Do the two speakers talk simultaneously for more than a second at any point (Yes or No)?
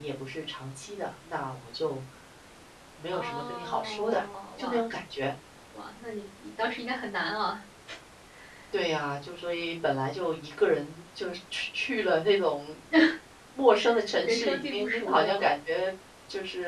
Yes